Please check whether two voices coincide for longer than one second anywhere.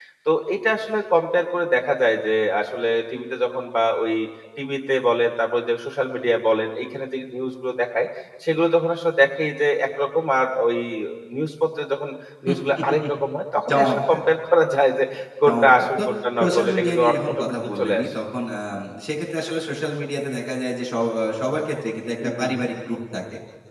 Yes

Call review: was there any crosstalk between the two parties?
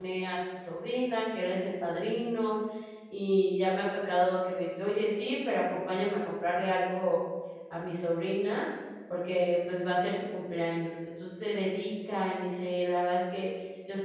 No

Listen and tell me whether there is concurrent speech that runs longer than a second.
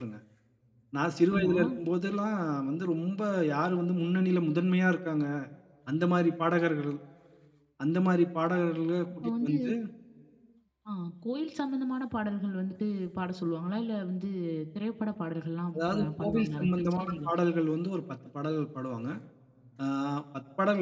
Yes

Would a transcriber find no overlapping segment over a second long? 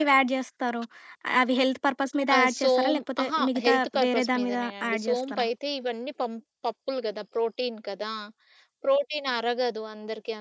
No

